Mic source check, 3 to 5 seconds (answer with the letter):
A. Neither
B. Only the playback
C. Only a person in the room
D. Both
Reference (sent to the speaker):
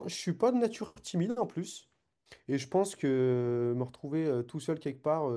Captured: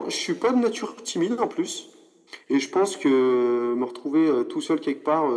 B